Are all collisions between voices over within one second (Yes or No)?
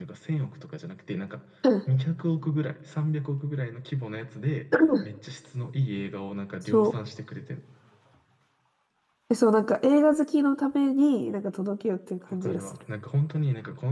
Yes